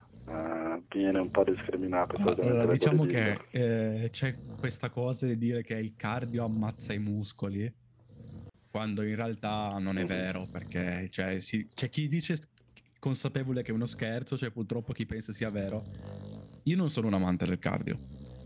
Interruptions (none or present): present